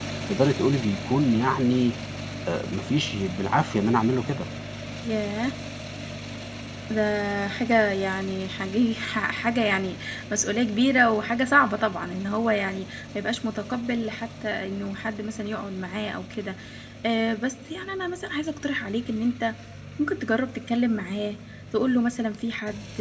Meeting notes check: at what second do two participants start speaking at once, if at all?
none

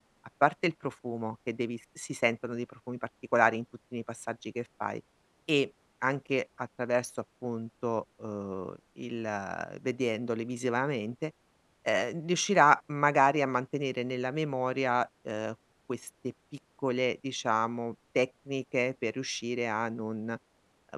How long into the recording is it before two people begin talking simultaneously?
none

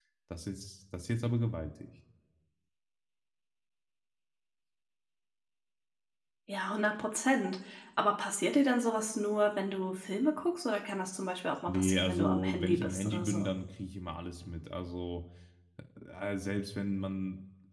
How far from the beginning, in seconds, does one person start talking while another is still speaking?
11.7 s

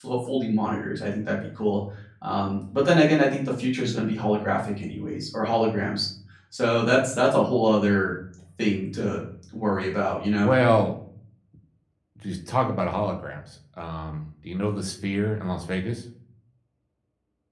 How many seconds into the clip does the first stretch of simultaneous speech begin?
none

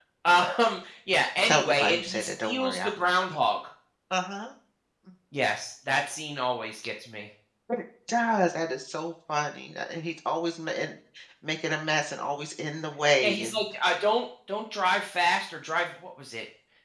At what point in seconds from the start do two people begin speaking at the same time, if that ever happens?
1.4 s

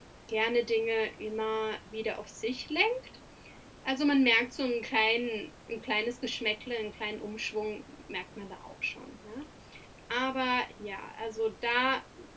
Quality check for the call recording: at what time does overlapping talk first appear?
none

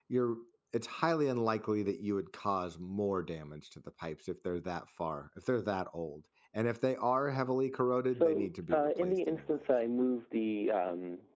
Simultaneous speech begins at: 8.1 s

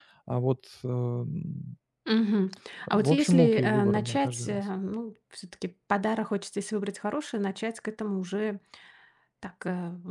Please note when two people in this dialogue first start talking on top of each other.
2.9 s

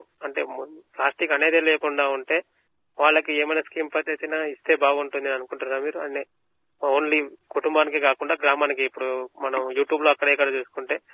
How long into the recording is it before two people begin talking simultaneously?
none

